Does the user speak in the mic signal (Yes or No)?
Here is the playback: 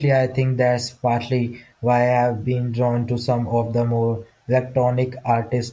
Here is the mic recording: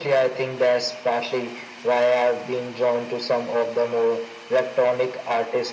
No